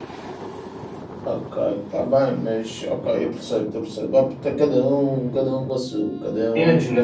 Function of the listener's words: taking over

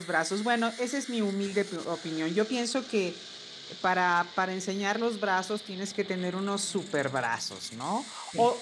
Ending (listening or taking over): listening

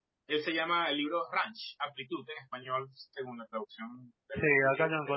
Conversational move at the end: taking over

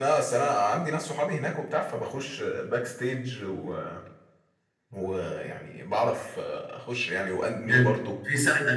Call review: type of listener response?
taking over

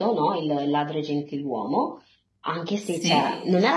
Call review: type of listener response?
listening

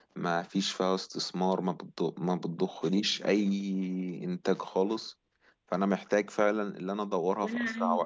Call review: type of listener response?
taking over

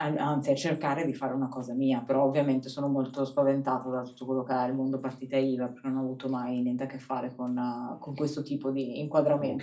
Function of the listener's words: taking over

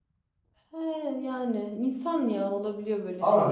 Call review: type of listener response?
taking over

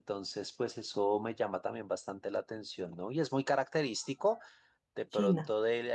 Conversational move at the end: listening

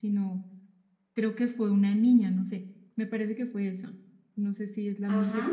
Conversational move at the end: taking over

